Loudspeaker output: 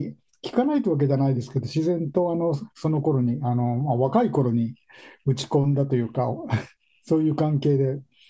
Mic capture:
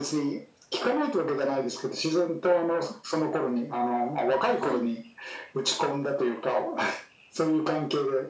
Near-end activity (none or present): present